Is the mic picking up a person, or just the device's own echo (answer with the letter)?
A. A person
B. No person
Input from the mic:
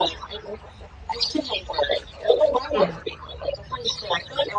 A